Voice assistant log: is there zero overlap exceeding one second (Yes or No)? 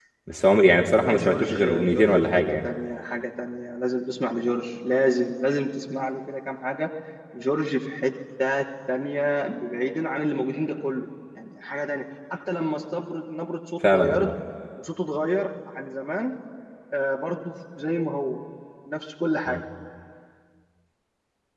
No